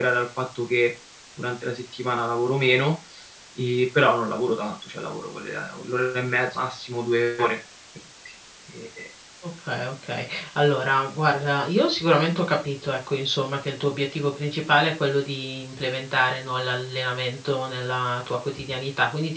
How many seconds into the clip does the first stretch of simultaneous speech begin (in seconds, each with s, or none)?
none